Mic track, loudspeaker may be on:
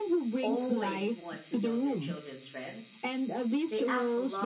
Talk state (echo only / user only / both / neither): both